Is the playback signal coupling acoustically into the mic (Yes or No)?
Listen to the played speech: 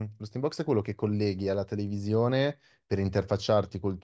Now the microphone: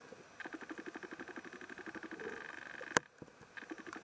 No